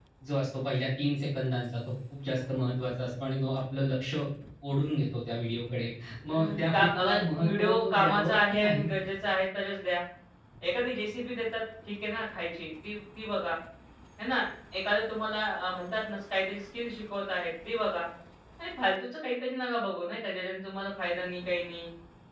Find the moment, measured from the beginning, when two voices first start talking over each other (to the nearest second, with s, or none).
6 s